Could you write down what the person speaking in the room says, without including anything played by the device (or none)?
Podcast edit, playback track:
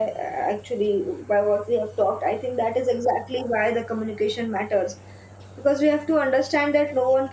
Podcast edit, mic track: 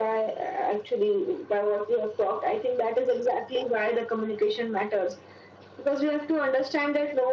none